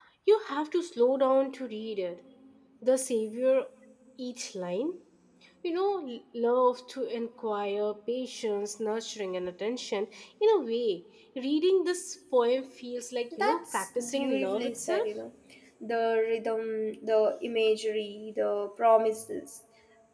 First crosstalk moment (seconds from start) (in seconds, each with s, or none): 13.3 s